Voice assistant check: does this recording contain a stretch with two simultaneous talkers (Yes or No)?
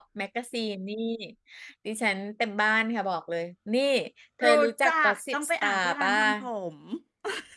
Yes